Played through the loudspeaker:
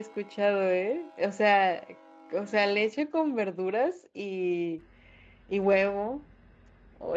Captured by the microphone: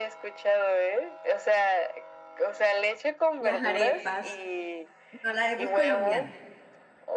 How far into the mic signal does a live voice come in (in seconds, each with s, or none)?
3.4 s